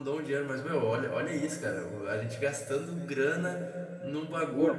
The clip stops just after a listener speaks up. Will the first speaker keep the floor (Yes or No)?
Yes